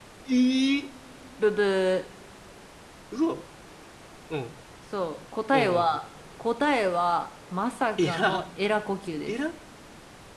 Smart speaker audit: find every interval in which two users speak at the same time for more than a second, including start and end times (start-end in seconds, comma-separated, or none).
none